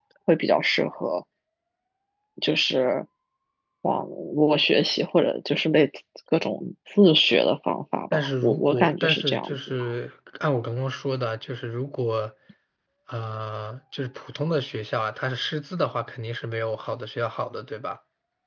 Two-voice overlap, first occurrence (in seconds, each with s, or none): 8.1 s